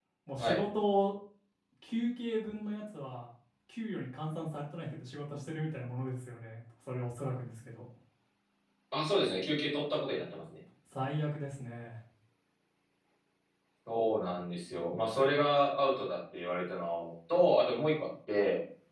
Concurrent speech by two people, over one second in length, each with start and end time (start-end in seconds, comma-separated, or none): none